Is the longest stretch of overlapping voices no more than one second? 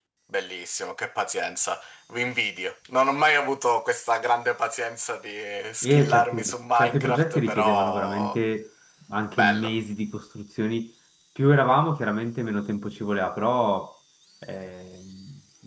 No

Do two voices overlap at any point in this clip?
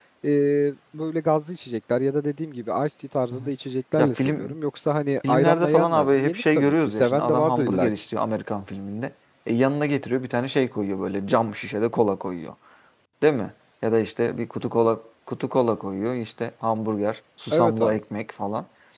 Yes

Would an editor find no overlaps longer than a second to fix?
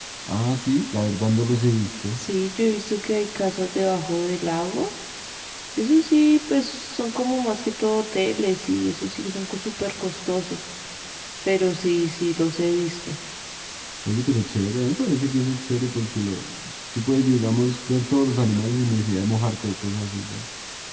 Yes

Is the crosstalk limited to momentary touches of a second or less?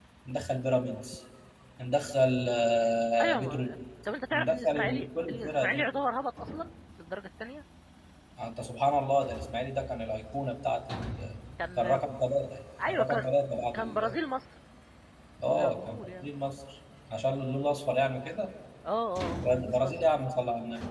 No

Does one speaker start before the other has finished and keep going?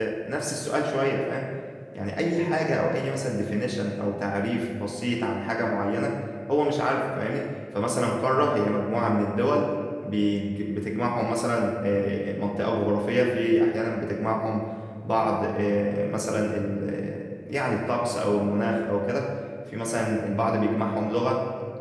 No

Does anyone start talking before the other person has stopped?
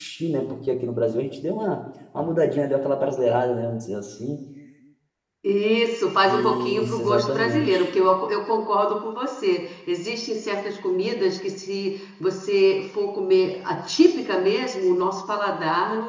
Yes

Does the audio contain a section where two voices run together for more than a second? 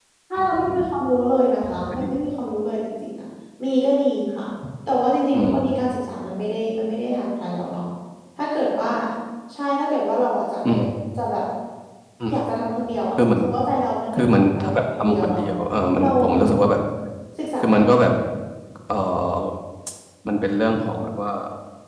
Yes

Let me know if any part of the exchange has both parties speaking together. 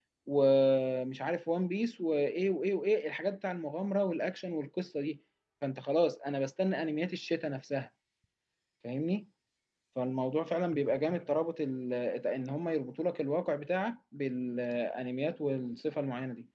No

